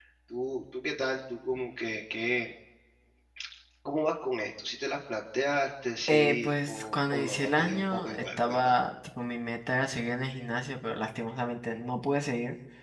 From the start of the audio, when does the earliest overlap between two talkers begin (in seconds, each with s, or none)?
6.1 s